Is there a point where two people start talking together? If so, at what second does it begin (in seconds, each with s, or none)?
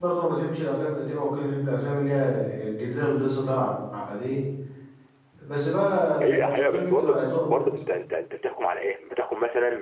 6.2 s